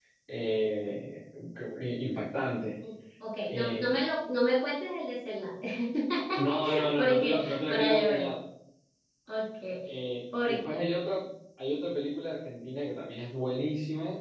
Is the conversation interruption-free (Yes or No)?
No